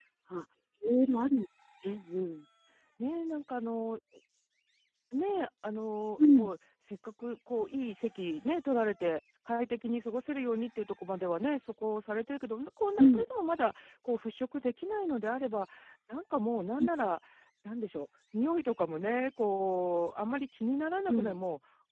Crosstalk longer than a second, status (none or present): none